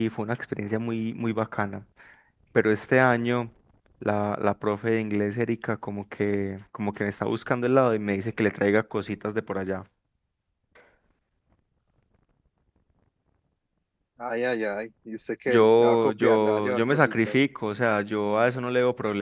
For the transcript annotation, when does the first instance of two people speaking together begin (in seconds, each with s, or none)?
15.5 s